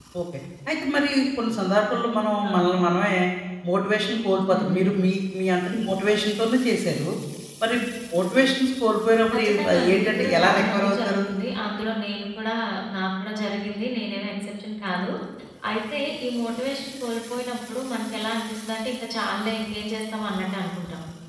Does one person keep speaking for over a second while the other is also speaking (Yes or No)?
Yes